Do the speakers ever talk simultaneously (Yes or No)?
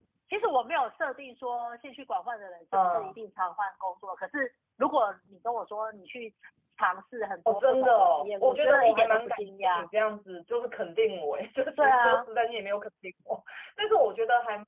Yes